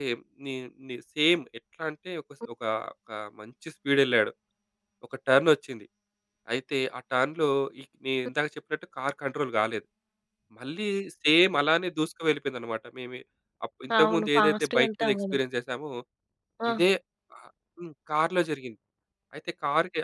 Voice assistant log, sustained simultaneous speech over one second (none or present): present